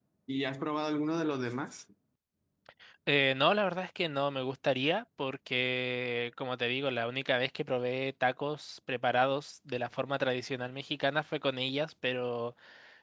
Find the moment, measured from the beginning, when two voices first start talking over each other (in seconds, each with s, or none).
none